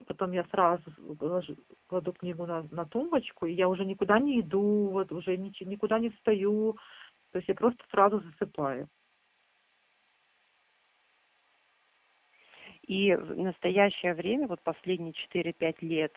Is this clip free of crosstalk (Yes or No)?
Yes